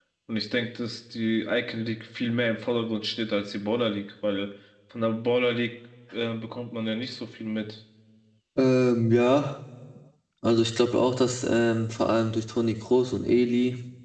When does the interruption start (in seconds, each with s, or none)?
none